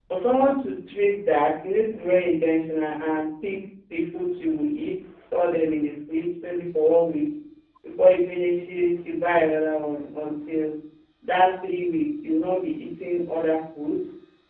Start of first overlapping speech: none

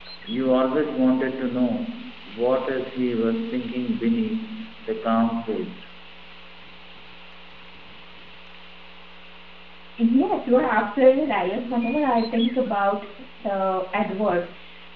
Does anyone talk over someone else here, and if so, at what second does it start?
none

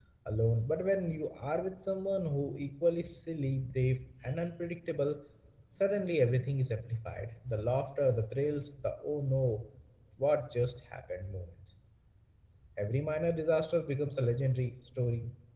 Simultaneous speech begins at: none

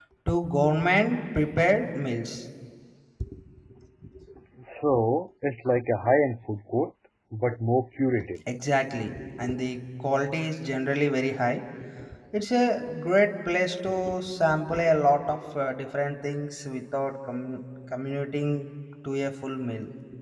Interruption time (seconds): none

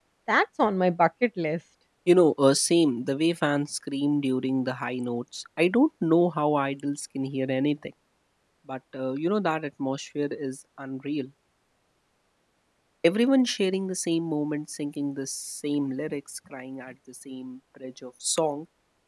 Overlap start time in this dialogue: none

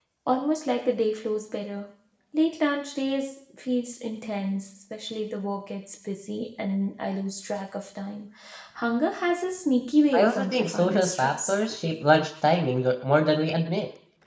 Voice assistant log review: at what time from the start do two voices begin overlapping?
10.1 s

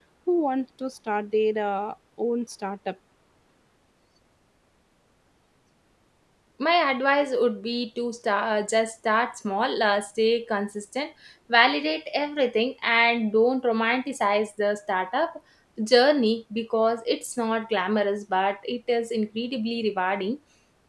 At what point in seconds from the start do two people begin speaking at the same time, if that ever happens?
none

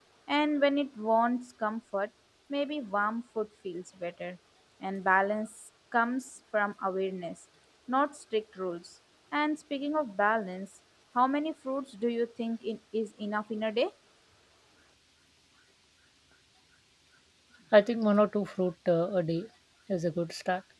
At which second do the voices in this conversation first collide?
none

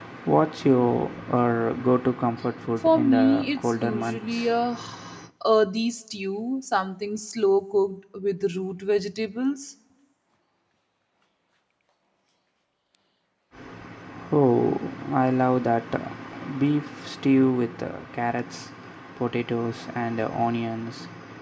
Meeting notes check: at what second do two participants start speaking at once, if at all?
2.8 s

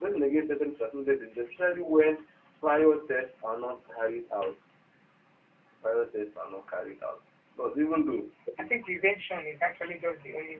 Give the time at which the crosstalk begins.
none

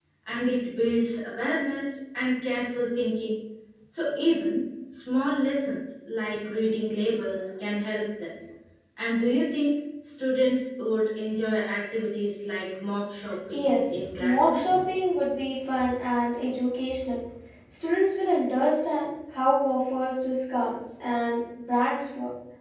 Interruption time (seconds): 13.5 s

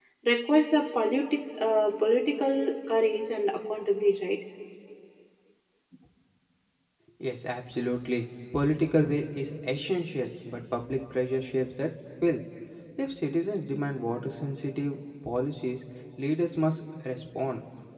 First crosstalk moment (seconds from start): none

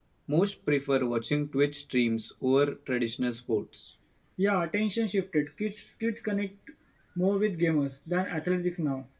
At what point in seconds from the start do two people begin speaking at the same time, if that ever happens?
none

